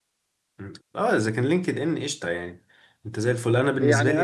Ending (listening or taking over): taking over